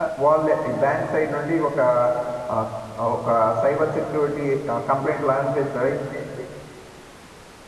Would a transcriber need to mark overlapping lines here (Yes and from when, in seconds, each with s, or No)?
No